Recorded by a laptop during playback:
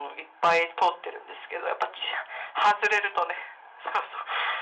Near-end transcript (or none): none